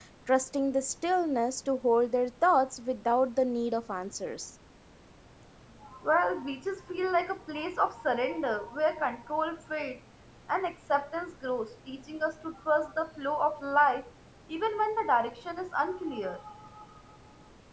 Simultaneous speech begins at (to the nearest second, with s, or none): none